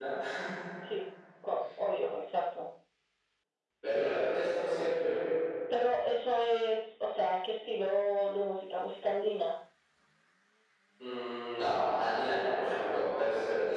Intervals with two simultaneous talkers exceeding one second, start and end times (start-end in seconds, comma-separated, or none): none